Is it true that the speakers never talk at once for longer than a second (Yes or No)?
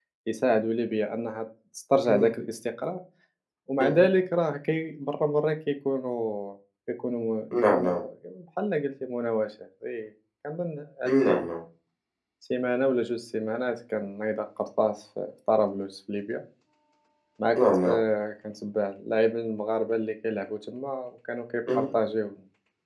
Yes